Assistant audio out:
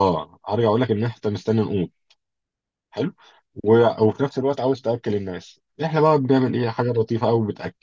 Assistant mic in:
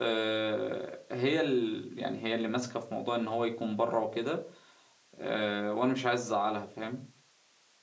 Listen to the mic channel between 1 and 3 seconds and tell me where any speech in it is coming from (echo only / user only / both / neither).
user only